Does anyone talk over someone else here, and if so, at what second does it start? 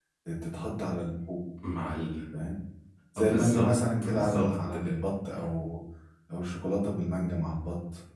3.2 s

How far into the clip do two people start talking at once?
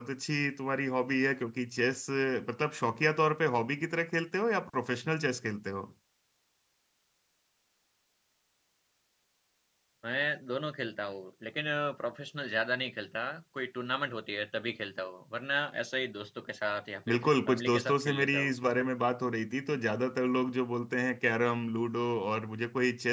17.1 s

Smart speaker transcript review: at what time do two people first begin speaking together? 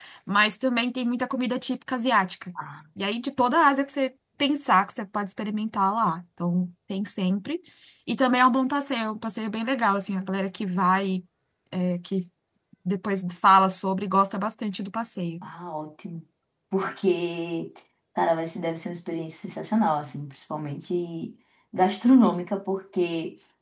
none

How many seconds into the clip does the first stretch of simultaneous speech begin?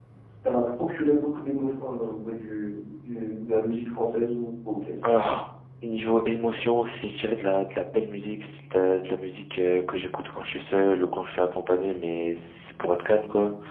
none

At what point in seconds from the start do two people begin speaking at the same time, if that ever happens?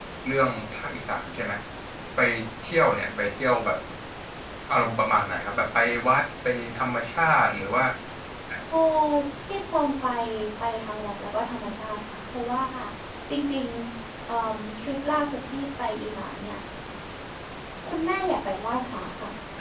none

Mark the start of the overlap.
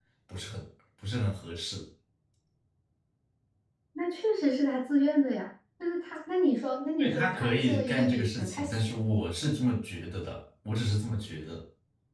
7.0 s

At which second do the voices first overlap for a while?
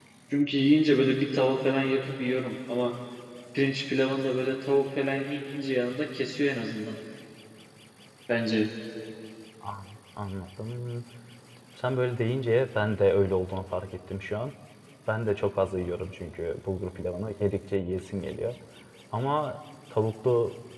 none

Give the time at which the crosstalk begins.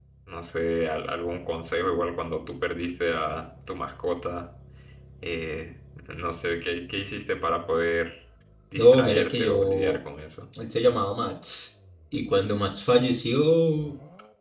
8.8 s

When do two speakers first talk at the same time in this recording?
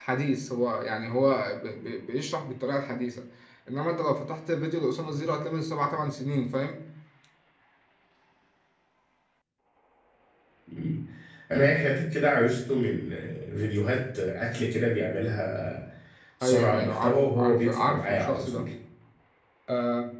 16.4 s

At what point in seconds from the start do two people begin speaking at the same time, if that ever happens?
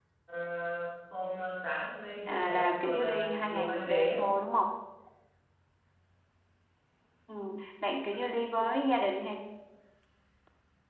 2.3 s

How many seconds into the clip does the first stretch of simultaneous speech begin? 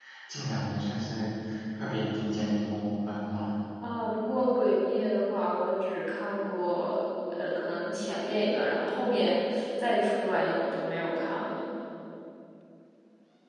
none

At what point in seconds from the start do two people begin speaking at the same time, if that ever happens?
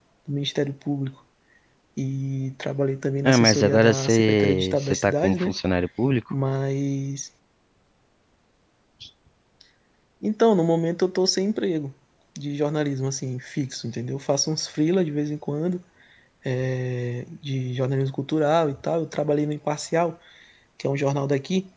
3.2 s

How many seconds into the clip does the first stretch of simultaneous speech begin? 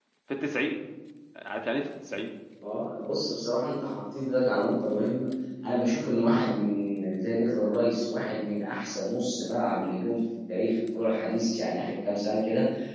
none

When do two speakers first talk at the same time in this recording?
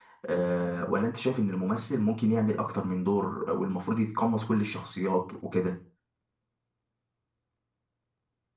none

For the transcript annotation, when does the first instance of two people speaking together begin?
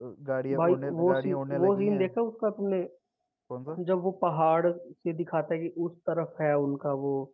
0.6 s

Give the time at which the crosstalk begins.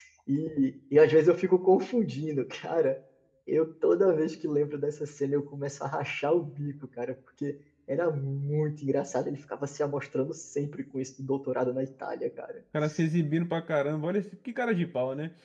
none

